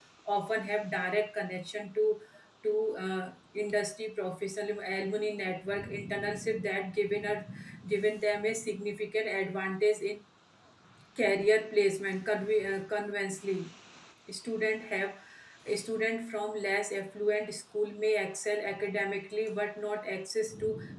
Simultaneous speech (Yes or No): No